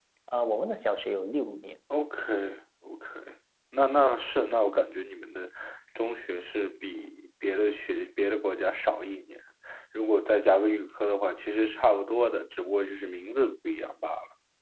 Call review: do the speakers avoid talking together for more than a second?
Yes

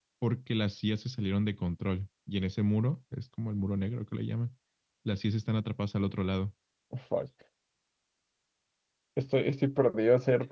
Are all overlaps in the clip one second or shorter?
Yes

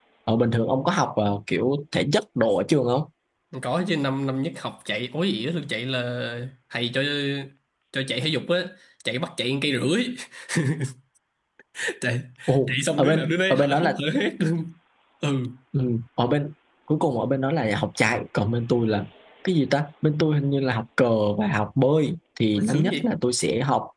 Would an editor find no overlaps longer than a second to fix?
No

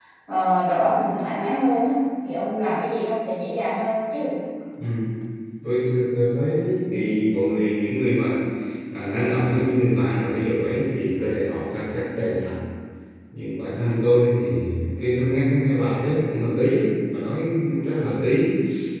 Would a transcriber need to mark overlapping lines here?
No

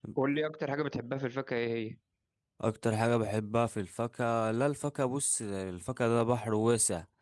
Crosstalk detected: No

